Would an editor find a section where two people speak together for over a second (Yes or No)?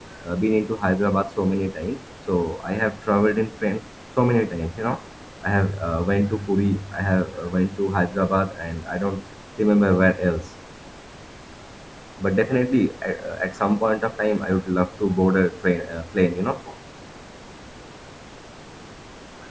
No